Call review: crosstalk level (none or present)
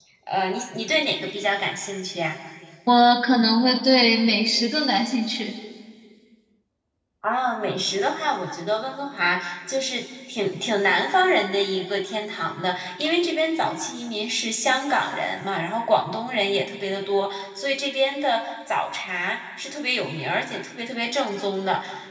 none